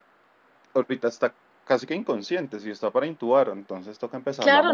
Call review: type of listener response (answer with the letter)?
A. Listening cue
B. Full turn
B